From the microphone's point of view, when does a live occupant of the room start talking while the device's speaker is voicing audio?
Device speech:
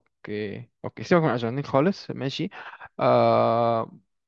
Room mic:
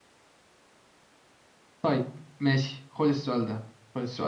1.8 s

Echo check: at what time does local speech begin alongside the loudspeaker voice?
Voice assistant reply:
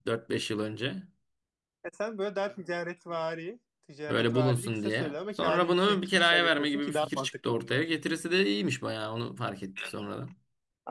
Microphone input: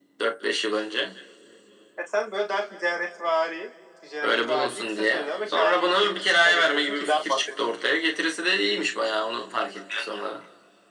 none

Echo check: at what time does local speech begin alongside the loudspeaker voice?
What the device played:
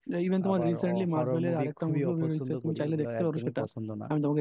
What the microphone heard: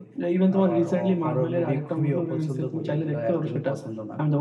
none

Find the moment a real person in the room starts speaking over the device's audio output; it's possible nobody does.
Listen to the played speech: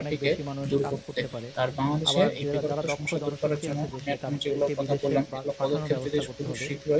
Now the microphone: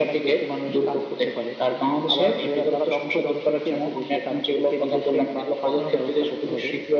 none

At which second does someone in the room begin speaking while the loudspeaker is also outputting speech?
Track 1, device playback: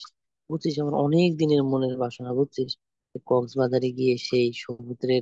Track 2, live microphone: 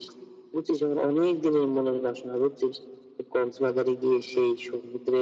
none

